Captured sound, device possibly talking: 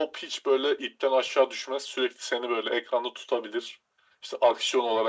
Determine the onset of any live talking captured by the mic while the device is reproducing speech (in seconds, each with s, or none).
none